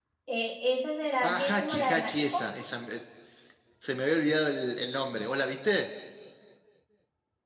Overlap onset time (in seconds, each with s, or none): 1.2 s